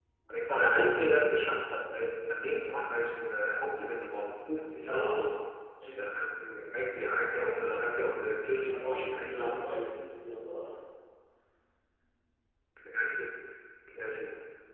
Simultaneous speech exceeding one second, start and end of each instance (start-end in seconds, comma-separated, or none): 8.7-9.9